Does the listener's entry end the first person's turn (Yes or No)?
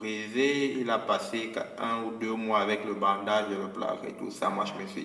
No